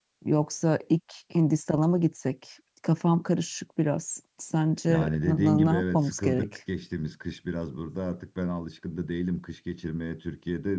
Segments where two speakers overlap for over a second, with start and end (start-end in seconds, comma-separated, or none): 4.9-6.5